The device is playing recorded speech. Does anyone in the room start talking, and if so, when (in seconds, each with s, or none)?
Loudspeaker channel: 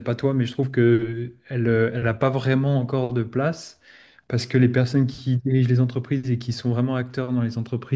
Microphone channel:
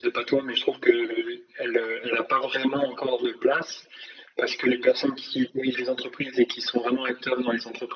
none